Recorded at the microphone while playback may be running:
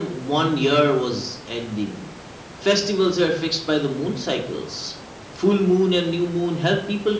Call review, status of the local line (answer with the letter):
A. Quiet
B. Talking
A